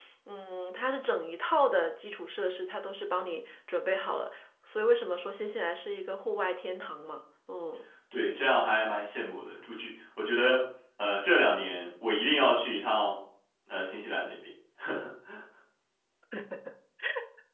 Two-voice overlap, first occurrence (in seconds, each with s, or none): none